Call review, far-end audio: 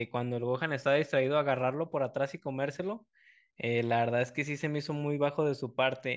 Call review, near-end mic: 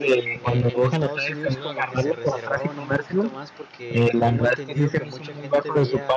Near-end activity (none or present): present